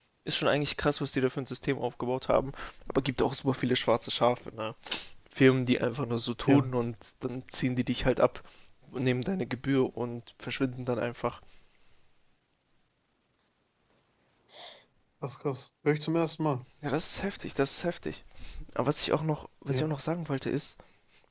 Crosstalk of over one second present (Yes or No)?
No